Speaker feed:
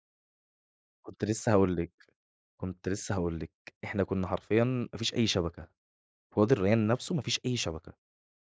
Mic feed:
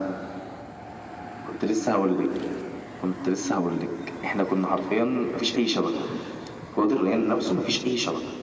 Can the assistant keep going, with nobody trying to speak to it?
Yes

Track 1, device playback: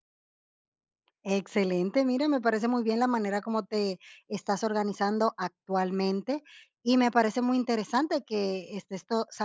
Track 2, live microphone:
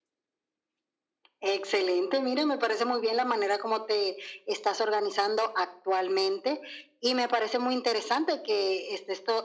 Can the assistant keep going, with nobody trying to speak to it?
Yes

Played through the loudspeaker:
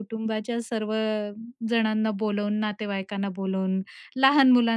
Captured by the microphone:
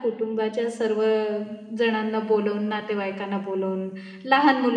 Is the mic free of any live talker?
Yes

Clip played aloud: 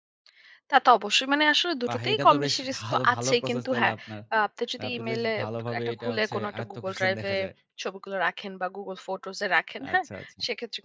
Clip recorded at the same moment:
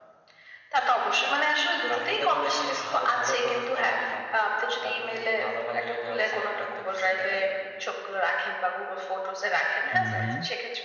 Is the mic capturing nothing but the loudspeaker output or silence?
No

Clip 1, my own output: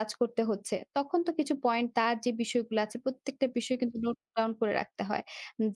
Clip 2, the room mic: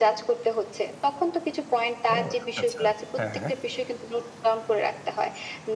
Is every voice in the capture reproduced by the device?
No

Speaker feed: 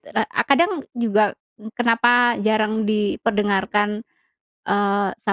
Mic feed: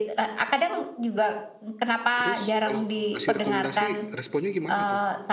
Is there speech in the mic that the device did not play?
Yes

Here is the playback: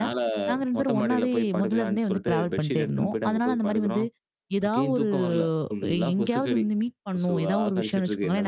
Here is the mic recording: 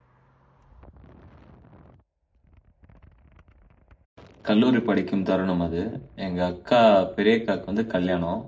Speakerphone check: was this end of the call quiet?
No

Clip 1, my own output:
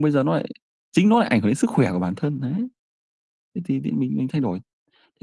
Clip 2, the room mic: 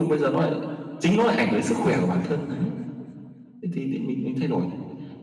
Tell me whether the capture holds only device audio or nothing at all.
Yes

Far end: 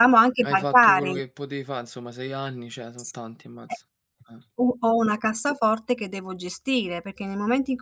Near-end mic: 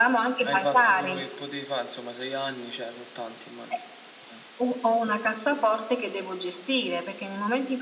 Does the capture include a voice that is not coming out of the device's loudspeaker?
No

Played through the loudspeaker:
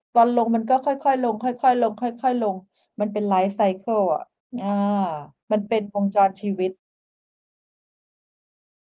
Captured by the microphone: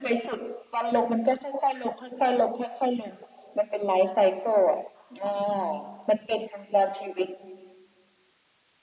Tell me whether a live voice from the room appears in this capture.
No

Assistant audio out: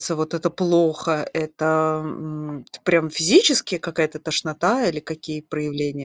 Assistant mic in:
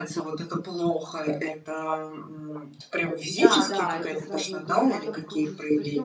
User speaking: Yes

